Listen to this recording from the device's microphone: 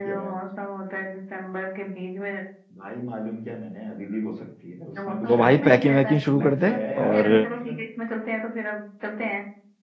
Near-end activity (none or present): present